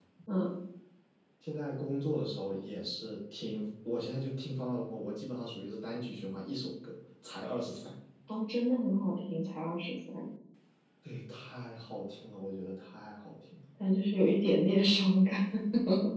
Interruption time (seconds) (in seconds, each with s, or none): none